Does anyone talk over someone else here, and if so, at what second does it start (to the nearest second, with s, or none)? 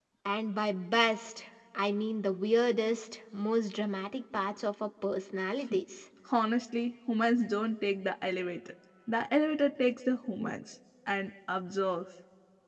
none